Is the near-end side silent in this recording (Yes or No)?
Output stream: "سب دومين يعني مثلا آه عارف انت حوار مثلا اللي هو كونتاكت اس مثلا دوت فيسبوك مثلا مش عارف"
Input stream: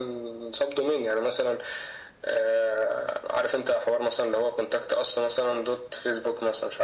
Yes